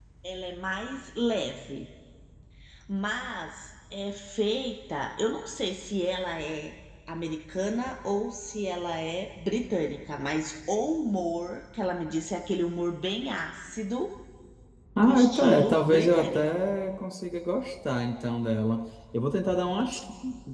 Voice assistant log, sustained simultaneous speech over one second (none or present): present